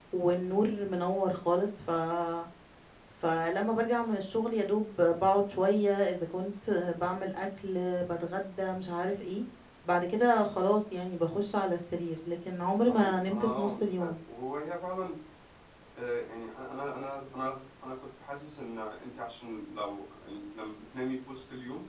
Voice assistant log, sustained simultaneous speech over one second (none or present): present